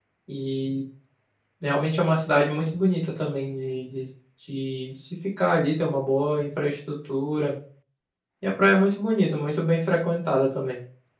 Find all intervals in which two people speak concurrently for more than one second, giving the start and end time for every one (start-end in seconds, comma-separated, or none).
none